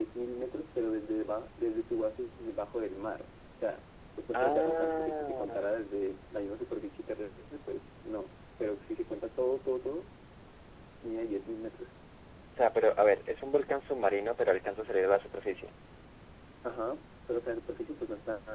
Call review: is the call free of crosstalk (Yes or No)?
No